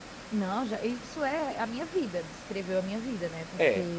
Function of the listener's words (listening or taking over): listening